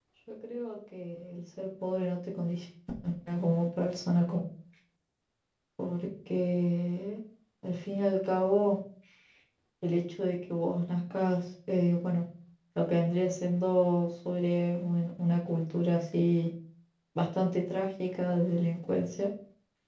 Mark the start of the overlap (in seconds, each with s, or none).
none